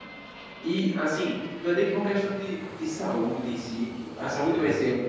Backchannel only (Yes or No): Yes